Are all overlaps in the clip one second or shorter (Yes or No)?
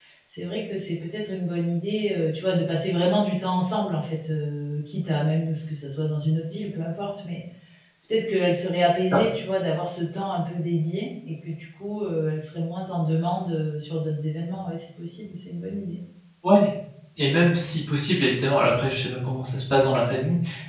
Yes